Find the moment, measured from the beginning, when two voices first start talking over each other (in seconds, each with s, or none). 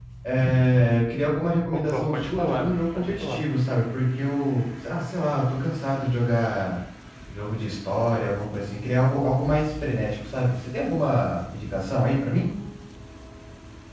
1.7 s